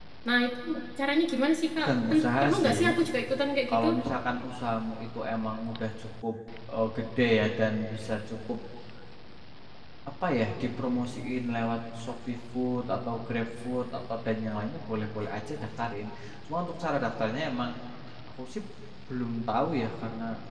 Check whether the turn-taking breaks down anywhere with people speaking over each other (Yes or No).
Yes